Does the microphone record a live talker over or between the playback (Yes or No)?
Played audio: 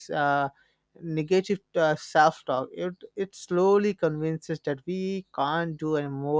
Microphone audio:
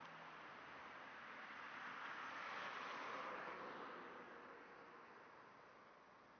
No